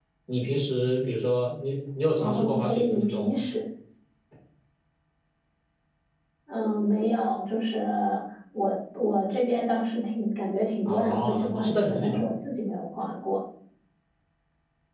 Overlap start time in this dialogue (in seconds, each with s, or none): 2.2 s